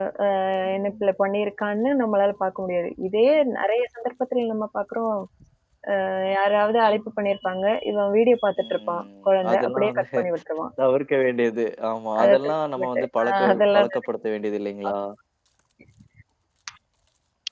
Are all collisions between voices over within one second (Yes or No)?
No